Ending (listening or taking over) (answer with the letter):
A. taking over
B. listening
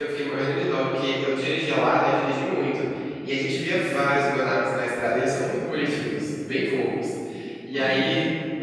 B